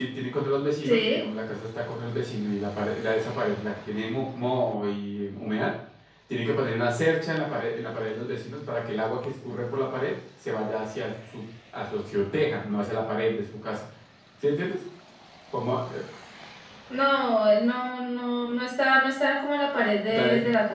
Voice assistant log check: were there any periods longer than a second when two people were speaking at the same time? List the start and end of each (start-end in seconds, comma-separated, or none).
none